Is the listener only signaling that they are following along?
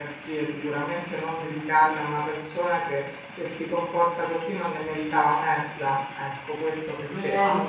Yes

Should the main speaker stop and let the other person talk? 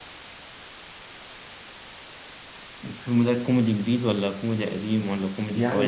Yes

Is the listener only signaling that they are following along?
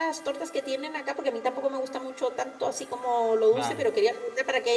Yes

